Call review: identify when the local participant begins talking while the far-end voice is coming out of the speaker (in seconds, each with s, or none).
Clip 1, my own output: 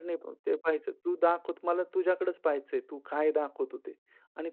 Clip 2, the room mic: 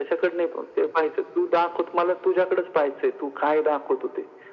none